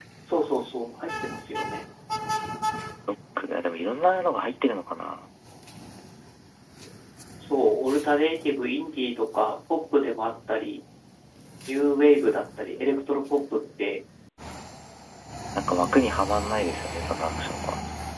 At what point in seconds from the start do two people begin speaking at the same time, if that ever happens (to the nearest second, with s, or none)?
none